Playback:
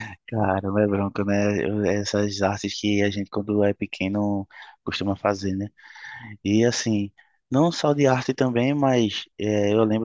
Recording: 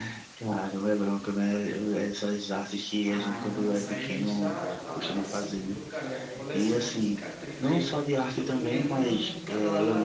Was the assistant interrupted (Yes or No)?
Yes